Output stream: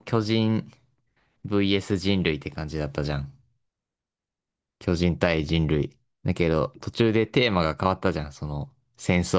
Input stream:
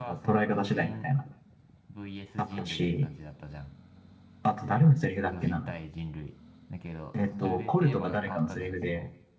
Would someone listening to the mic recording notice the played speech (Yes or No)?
Yes